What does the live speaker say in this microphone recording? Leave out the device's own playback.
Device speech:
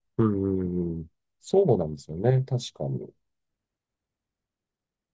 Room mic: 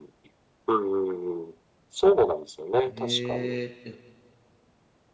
えーえ

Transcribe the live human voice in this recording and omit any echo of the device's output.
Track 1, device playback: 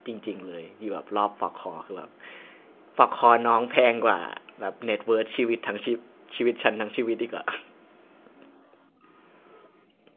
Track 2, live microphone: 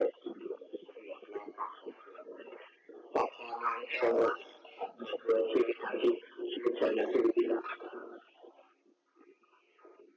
none

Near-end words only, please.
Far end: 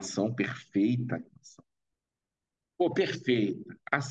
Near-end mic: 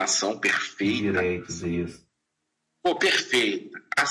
De direitos, isso.

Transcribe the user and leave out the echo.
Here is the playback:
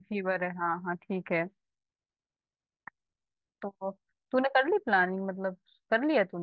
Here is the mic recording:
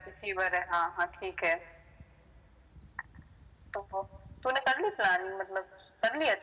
none

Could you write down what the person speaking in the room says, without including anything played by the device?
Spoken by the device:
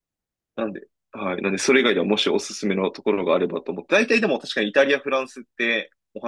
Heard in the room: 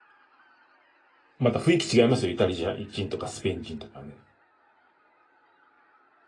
また雰囲気違いますよ。イタリア人とかスペイン人とかね。

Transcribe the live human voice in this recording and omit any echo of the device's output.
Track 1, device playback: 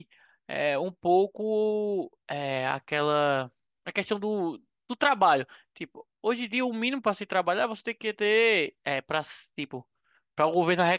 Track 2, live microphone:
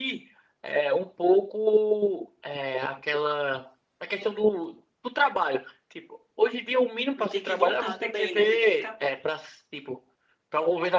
E ter que voltar também, né? Ter que ficar.

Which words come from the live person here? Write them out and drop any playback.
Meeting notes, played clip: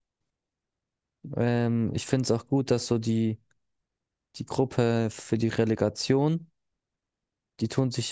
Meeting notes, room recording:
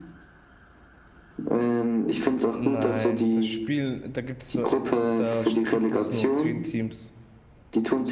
Nein, das Spiel, da gibt's nur, äh, da sch- gibt es nur zehn Teams.

